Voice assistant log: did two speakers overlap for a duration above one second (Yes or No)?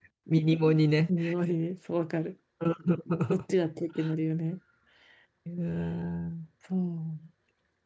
No